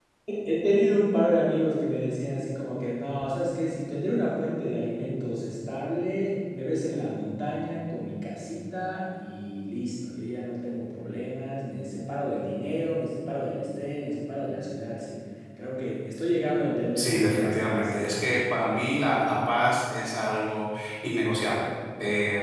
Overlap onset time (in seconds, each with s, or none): 17.0 s